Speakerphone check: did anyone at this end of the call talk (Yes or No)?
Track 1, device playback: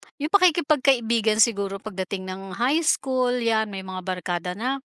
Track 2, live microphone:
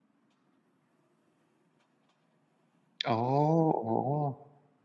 Yes